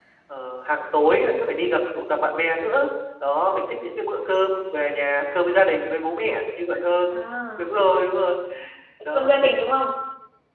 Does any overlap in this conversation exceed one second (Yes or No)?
No